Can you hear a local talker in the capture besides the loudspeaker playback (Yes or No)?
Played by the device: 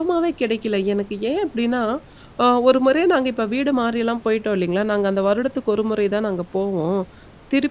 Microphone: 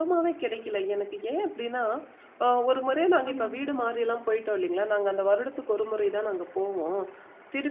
Yes